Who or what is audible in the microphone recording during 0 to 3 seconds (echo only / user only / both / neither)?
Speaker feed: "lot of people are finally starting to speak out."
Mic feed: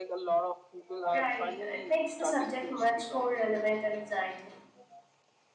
both